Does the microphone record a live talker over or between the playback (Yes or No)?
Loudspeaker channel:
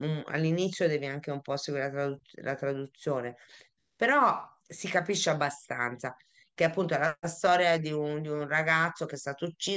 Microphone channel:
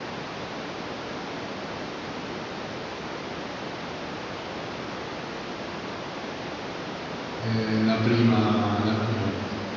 Yes